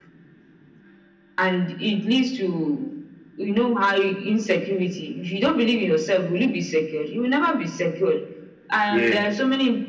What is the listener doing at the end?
listening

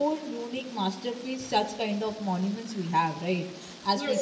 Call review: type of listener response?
listening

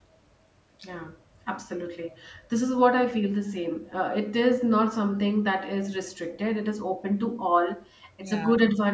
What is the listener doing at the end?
listening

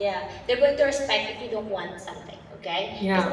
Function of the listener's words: listening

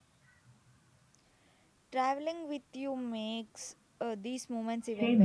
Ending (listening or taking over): taking over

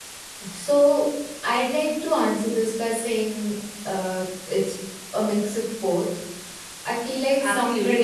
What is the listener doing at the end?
taking over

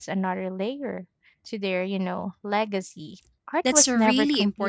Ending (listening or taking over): taking over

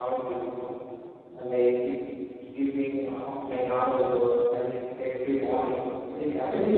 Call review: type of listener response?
taking over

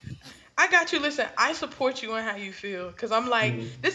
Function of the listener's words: listening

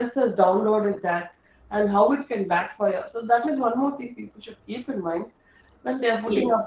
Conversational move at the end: listening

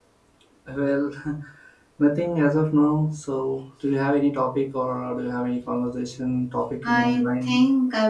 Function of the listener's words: taking over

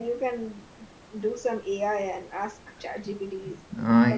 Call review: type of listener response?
taking over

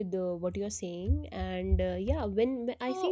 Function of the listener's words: listening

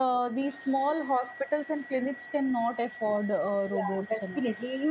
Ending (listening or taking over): taking over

